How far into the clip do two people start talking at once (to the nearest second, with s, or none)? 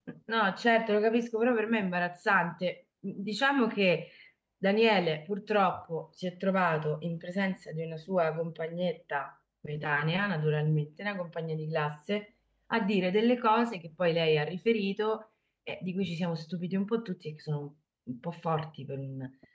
none